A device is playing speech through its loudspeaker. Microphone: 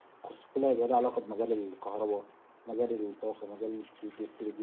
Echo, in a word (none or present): present